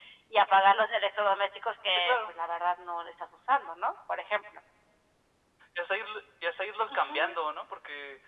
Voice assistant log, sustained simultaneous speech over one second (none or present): none